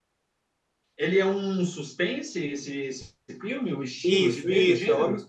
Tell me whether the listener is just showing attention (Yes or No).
No